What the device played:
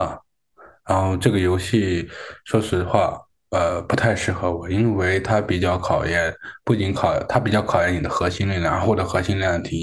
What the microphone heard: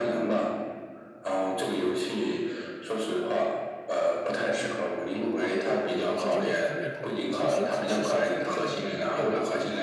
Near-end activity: present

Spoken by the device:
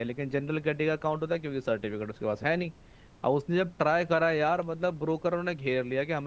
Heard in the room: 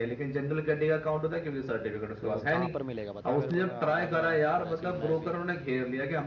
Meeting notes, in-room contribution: present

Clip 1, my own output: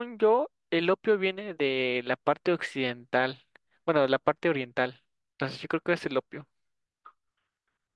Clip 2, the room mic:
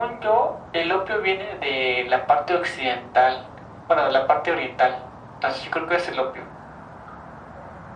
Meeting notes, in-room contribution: none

